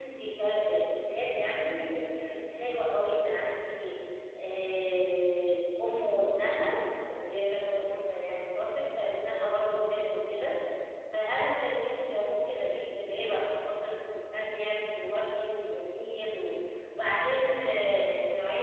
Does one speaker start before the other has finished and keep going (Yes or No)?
No